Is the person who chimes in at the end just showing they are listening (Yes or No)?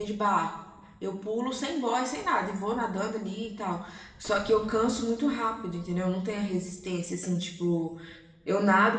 Yes